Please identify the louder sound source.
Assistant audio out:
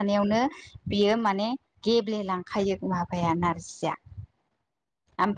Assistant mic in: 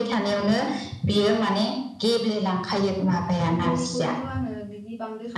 echo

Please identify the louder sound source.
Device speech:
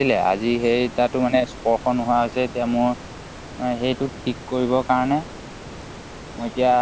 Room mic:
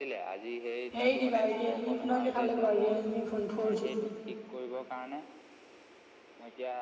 user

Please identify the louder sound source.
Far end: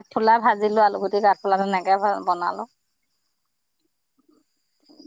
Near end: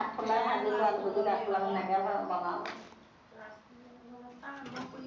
echo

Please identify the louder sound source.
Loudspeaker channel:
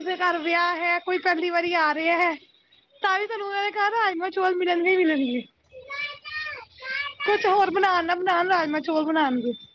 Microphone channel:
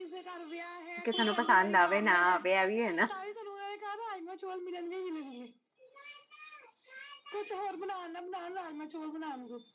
user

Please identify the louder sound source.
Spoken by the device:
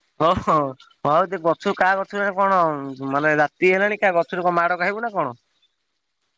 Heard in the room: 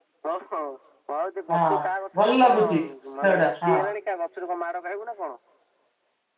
user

